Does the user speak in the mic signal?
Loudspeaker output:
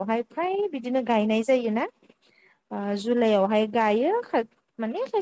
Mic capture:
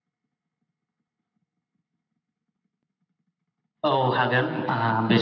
Yes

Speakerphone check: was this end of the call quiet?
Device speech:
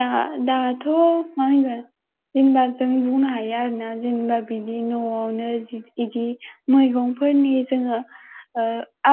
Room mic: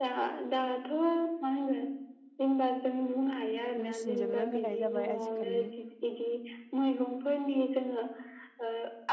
No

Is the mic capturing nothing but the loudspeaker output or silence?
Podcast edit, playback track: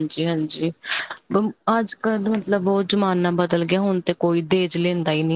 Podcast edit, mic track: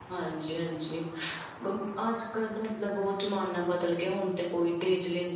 Yes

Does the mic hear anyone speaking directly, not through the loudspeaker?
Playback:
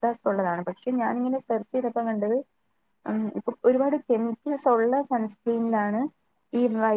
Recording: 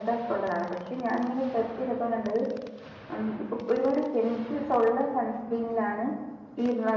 No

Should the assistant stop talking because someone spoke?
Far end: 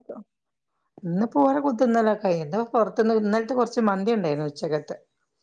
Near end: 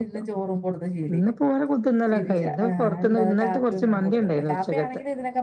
Yes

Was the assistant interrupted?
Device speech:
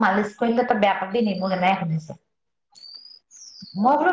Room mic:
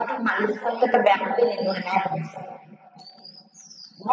No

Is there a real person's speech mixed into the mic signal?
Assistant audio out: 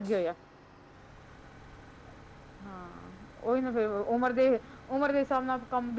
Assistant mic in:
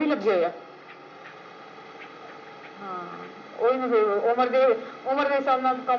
No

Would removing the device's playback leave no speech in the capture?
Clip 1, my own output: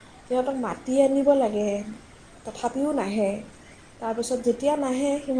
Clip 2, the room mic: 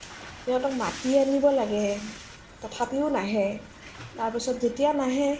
Yes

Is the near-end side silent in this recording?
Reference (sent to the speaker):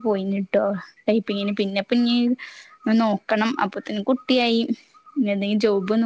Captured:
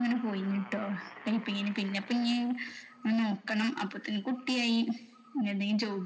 Yes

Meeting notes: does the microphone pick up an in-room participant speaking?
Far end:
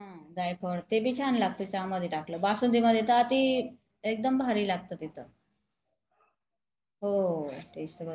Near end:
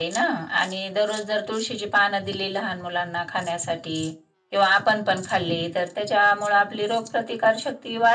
Yes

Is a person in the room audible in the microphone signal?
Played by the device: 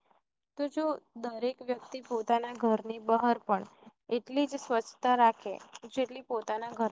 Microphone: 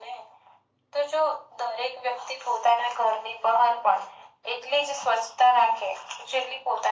No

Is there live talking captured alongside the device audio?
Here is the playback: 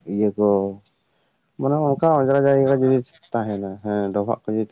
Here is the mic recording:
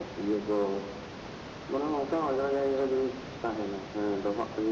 No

